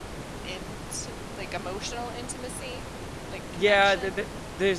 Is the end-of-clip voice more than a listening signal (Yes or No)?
Yes